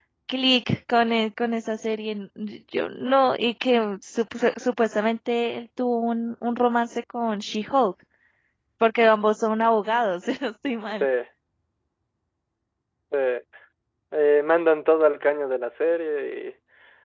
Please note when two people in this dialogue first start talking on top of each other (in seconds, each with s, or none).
none